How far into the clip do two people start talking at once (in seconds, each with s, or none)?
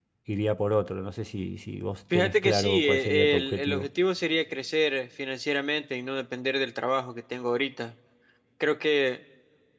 2.1 s